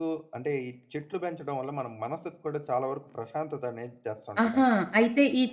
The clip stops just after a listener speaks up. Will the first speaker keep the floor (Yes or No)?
No